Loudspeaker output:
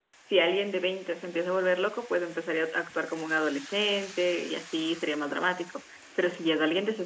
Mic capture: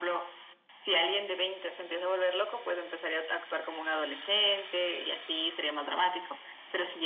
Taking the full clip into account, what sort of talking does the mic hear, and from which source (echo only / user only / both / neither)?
echo only